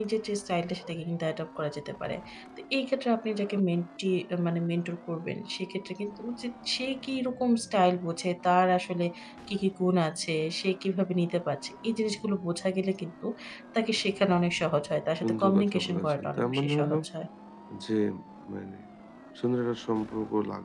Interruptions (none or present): present